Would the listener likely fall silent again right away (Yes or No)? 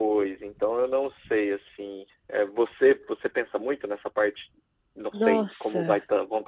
Yes